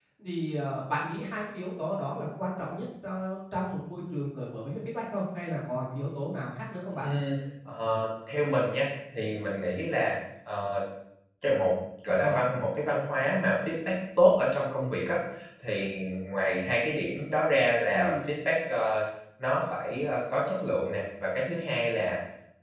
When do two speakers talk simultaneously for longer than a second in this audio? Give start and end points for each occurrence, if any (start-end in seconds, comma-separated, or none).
none